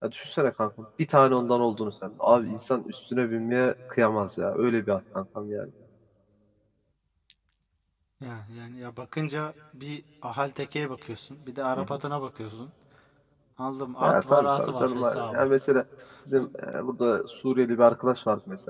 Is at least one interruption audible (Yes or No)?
Yes